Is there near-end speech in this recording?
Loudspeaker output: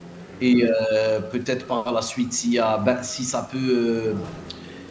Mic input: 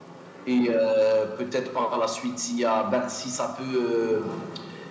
No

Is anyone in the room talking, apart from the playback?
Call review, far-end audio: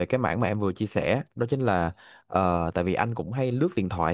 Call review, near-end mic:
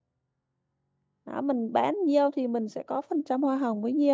Yes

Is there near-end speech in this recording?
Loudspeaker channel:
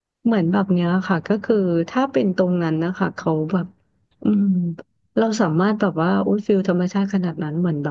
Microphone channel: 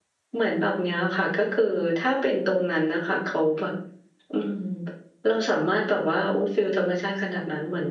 No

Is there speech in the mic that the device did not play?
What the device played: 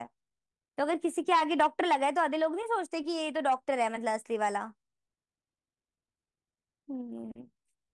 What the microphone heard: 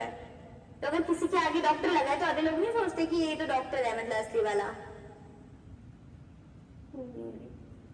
No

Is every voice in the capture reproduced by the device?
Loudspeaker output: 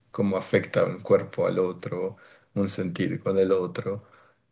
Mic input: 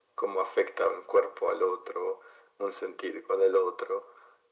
Yes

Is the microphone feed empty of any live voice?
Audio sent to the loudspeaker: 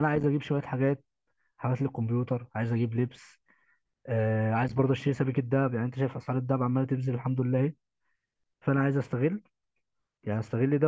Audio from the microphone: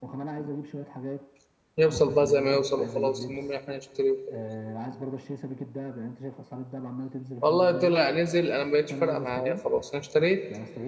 No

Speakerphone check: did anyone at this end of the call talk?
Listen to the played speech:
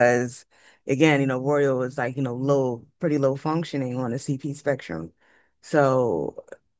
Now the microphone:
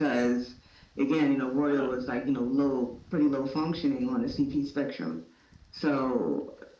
Yes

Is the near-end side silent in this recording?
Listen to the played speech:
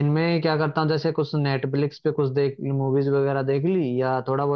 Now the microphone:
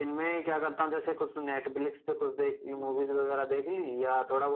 No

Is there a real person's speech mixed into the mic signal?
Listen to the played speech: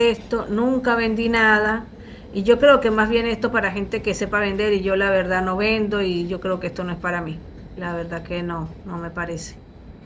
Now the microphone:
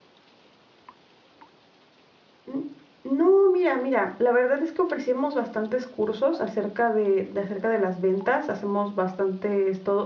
Yes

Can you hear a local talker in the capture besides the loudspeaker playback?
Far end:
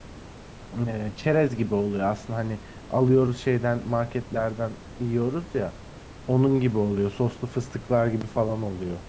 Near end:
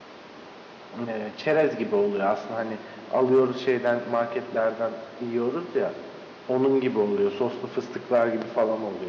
No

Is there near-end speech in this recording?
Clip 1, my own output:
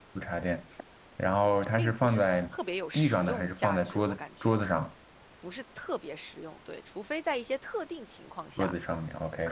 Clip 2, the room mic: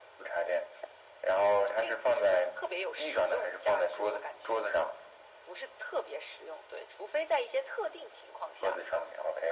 No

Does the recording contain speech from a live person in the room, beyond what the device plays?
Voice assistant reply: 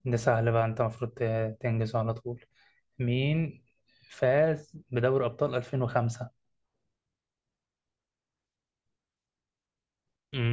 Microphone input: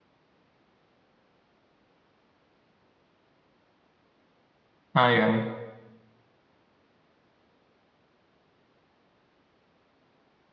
Yes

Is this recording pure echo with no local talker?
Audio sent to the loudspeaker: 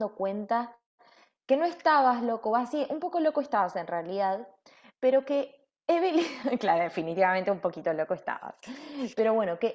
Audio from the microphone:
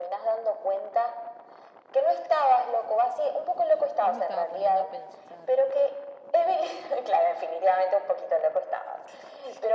No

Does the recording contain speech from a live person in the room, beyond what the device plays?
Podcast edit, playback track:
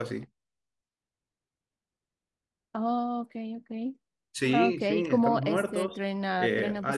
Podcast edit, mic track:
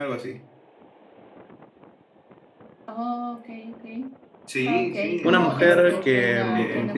Yes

